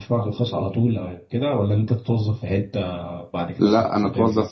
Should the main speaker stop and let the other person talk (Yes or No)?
Yes